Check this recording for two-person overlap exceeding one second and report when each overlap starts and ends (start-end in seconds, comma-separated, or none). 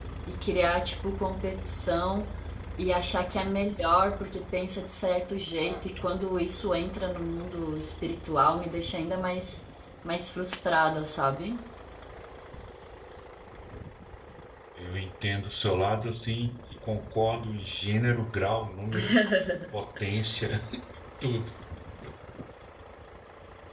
none